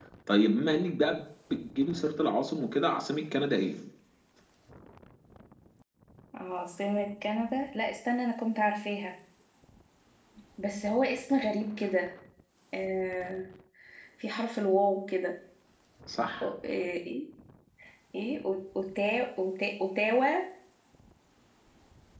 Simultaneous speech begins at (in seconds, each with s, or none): none